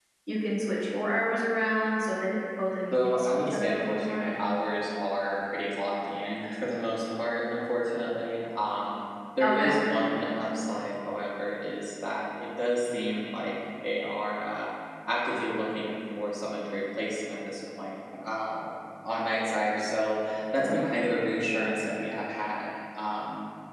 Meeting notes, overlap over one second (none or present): present